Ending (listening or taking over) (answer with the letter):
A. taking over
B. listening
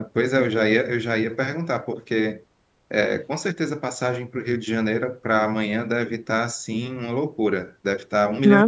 A